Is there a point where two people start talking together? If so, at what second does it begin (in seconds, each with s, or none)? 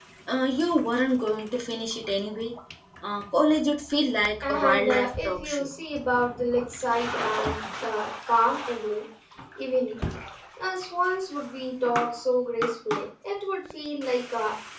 4.4 s